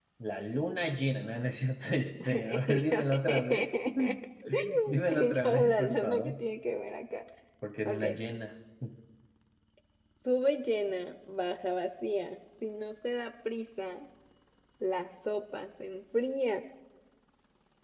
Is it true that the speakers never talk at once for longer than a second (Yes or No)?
No